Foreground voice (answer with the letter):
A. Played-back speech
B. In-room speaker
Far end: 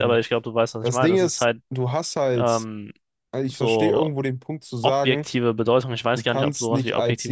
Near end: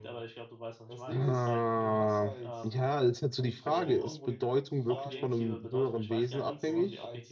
B